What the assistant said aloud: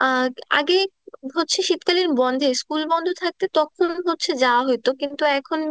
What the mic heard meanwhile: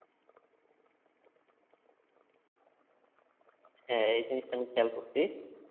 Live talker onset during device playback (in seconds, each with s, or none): 3.9 s